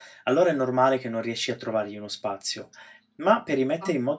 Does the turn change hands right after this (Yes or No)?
No